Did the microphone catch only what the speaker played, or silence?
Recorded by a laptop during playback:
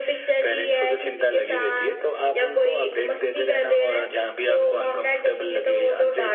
Yes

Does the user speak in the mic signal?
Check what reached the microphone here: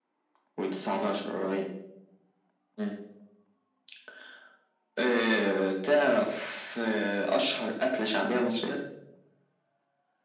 No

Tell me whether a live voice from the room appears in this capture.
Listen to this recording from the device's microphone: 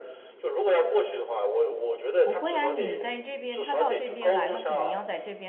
Yes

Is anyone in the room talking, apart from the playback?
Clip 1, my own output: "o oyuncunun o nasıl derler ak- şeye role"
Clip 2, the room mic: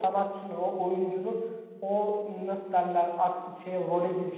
No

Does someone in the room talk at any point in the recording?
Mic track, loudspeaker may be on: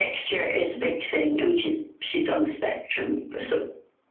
No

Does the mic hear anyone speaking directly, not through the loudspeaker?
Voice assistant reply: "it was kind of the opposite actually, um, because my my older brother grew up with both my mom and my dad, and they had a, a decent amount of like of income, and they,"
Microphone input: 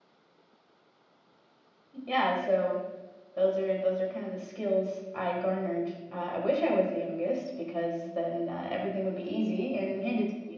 Yes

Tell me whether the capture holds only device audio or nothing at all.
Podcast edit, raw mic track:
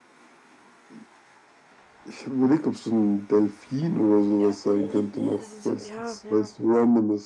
No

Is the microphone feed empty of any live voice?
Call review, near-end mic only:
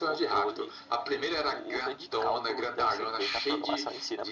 Yes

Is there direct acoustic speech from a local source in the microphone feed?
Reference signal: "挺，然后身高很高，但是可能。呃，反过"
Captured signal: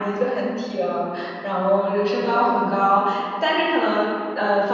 No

